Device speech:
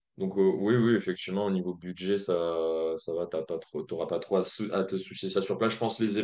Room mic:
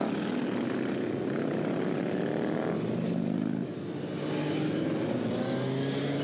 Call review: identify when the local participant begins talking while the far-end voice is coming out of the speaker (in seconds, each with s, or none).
none